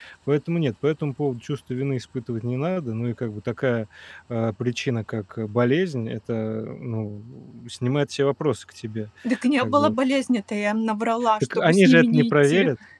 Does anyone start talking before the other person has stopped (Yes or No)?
Yes